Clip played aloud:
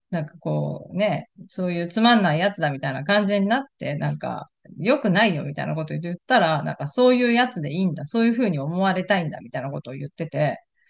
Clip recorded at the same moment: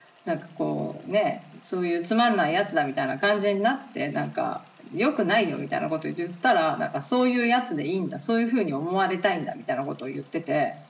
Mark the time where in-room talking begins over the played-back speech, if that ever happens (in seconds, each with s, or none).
none